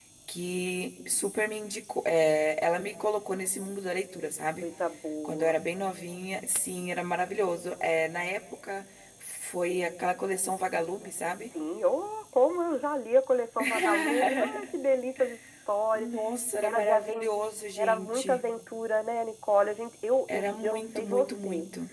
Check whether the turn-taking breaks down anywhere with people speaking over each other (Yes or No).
Yes